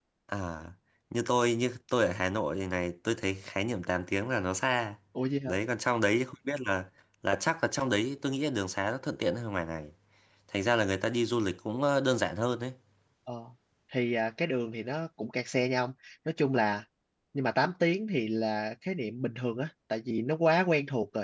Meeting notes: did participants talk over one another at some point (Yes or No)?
No